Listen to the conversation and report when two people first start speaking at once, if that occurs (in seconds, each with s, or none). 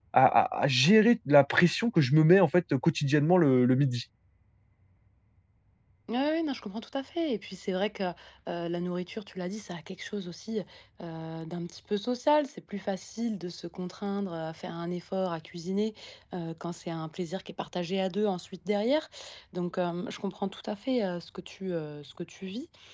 none